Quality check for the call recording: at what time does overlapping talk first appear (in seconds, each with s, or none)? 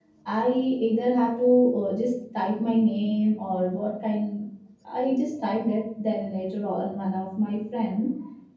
none